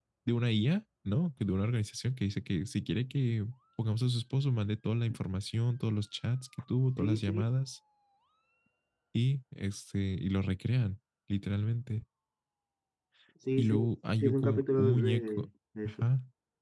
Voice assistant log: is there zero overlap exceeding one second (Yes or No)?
No